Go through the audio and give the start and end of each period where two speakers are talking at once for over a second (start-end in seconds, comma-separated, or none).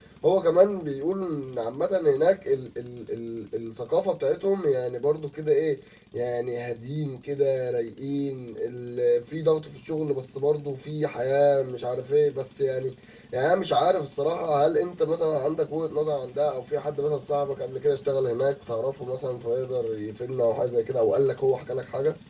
none